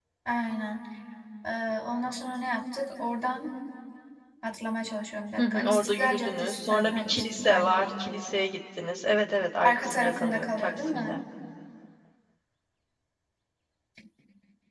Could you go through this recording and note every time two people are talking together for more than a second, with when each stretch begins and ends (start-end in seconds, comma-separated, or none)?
5.4-7.9, 9.6-11.2